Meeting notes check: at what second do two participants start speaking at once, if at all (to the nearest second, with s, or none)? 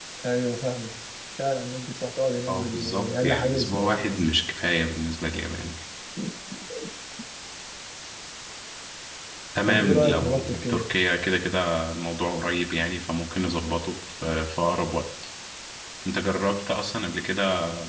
2 s